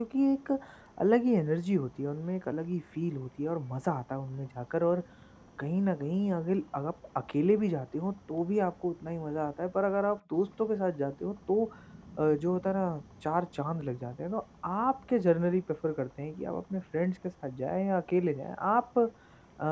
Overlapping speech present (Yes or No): No